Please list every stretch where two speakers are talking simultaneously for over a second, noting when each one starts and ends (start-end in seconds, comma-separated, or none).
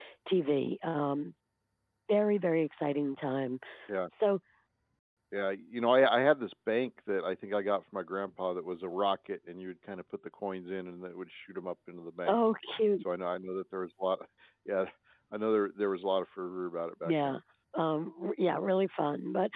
none